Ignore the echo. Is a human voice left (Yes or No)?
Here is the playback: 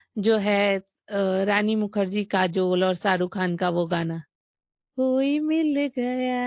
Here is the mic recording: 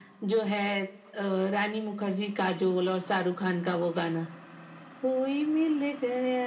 No